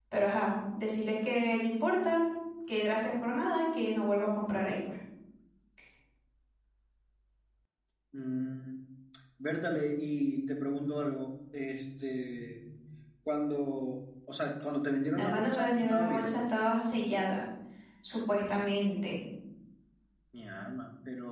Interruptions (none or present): present